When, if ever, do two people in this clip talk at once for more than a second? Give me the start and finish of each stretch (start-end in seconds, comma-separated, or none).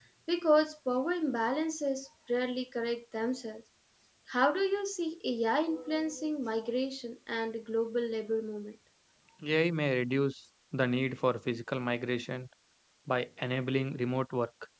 none